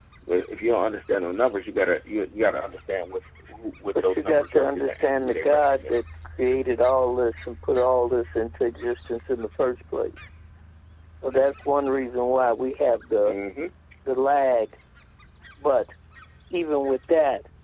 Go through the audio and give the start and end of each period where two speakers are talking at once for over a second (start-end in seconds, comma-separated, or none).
4.0-5.9